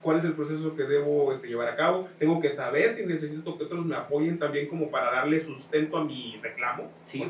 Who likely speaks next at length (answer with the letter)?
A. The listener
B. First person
A